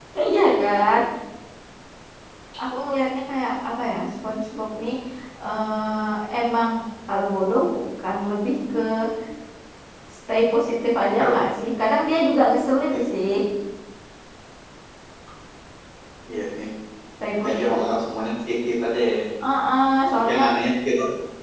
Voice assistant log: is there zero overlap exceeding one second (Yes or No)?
Yes